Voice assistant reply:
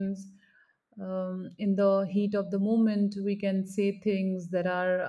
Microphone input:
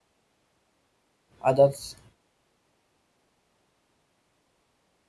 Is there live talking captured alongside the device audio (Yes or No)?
Yes